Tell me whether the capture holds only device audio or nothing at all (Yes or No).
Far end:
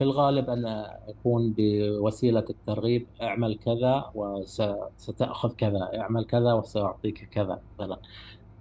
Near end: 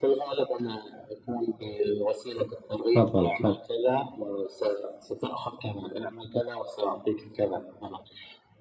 No